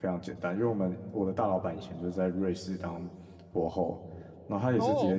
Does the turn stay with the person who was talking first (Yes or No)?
Yes